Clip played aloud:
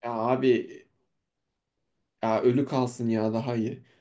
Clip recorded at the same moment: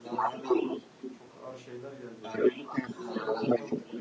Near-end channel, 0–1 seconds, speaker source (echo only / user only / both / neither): both